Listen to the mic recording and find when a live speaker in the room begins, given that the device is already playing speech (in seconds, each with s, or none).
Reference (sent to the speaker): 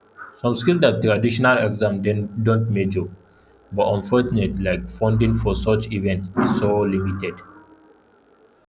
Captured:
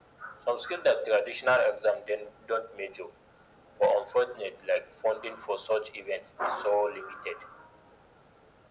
none